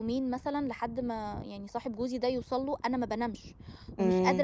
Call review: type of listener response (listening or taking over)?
listening